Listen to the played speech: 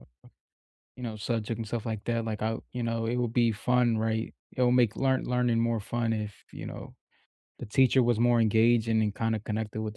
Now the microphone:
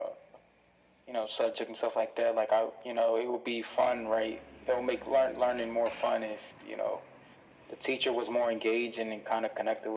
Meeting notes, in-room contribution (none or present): none